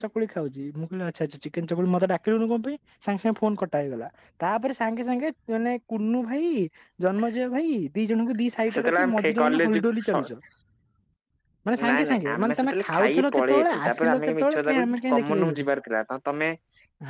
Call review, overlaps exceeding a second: present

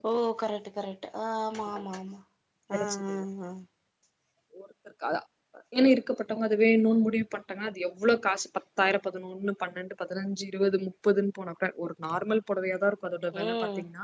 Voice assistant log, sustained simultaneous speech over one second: none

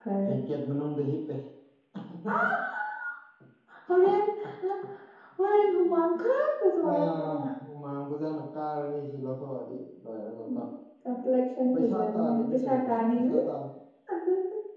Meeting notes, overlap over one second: present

